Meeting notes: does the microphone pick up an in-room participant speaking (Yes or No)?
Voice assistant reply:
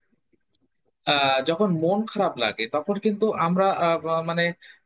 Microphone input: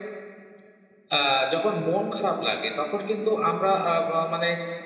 No